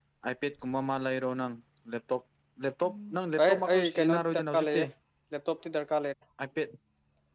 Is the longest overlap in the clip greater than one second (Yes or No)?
Yes